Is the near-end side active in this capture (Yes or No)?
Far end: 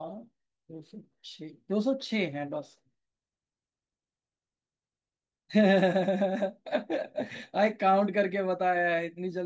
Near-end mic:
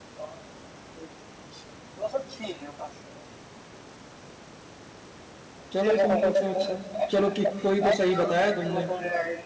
Yes